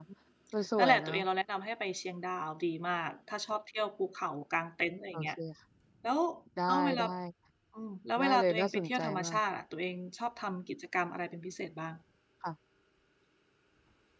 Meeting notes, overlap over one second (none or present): present